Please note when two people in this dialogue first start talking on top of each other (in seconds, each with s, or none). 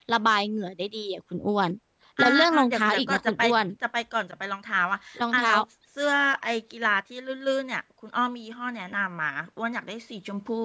2.2 s